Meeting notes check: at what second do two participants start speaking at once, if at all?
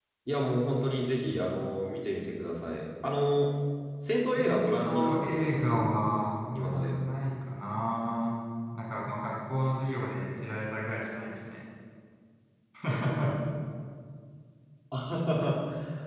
4 s

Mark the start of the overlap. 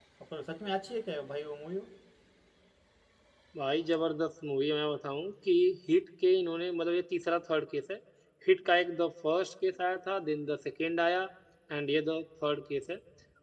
none

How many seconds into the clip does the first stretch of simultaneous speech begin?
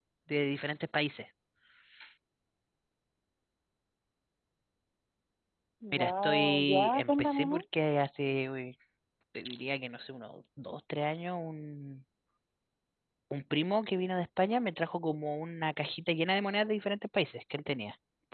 6 s

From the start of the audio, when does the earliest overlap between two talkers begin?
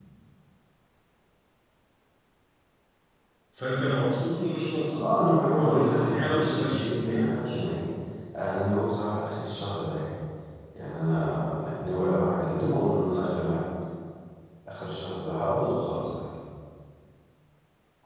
5 s

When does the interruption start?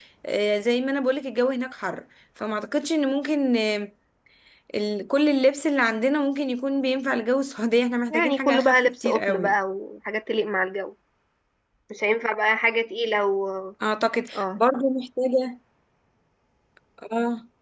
8 s

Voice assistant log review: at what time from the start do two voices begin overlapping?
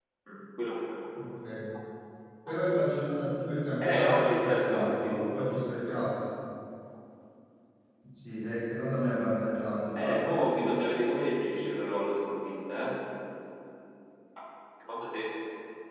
4 s

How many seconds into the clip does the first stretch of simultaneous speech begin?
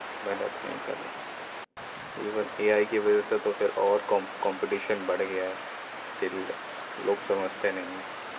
none

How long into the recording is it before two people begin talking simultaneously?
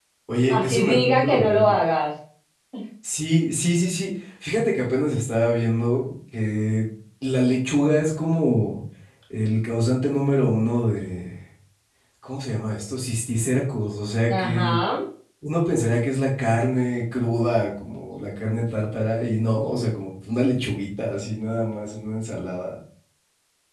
1 s

